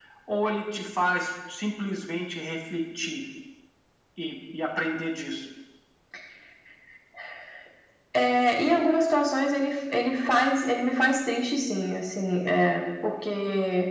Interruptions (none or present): none